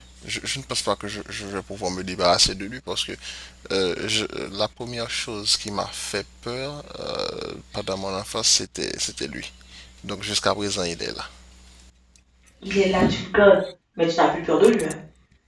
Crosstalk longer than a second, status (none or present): none